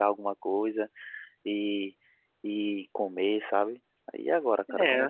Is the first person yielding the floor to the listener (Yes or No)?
Yes